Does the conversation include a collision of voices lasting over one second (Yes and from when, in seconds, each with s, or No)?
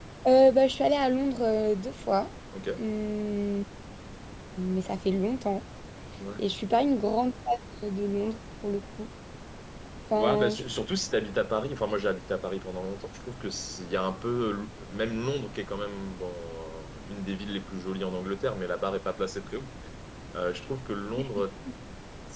No